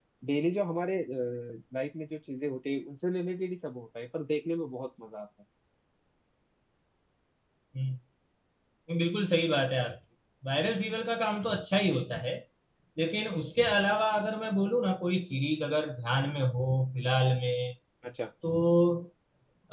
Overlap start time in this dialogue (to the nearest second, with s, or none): none